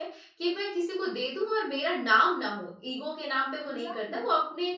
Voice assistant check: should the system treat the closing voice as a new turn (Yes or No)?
No